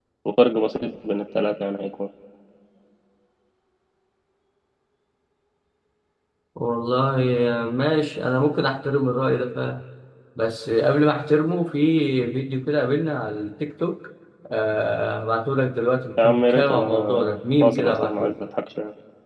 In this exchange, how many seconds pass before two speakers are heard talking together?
16.2 s

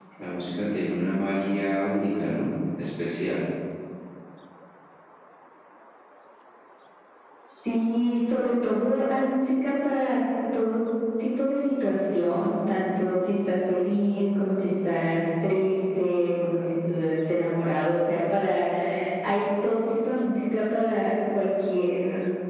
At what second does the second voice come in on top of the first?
none

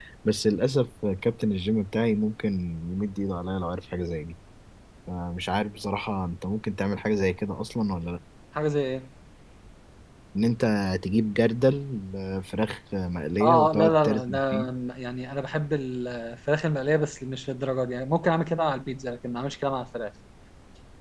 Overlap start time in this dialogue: 13.4 s

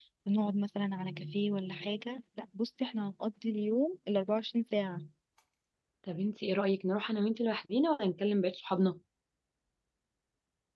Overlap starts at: none

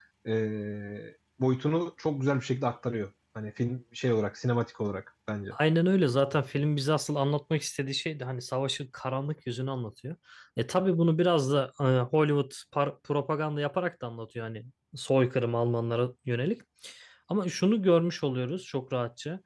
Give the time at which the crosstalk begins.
none

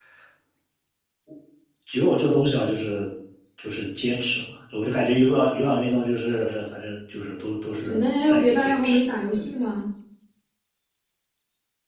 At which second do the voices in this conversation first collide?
7.8 s

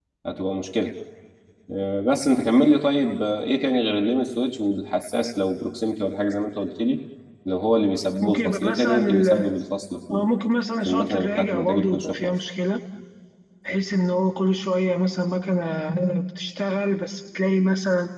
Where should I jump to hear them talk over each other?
8.2 s

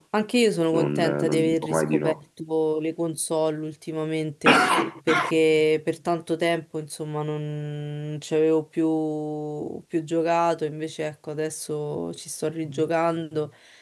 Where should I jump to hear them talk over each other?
0.7 s

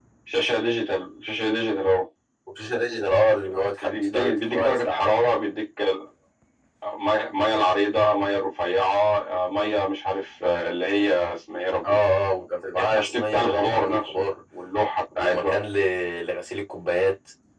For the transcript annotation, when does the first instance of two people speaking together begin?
3.8 s

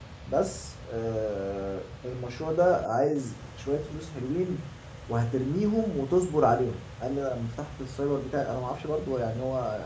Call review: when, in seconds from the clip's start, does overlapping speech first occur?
none

